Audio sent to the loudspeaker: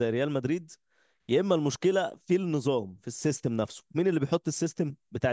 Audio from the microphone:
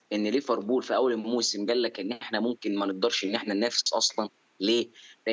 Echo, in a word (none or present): none